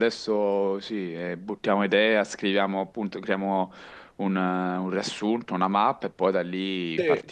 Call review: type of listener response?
taking over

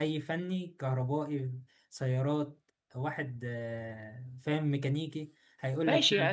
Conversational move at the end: taking over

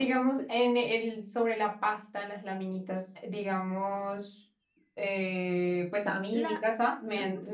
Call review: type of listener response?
listening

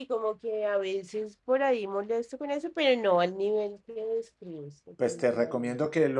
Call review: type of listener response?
taking over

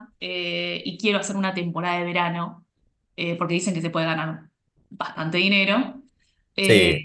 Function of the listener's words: listening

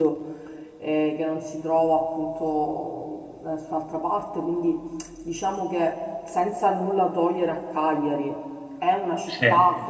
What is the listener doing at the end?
listening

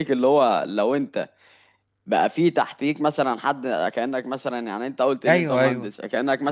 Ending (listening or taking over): listening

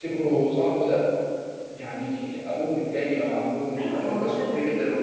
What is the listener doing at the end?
taking over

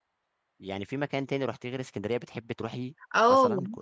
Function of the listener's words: taking over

